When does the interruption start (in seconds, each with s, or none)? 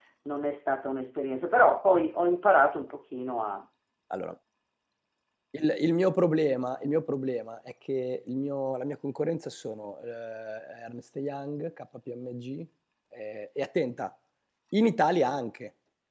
none